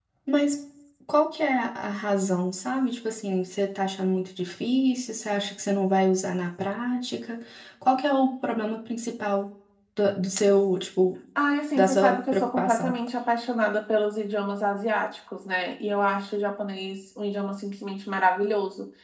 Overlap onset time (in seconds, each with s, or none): 11.8 s